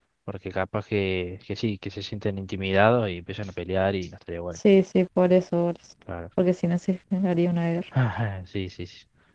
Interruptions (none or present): none